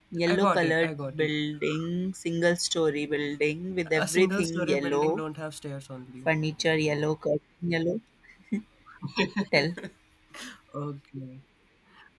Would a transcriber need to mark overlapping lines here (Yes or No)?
Yes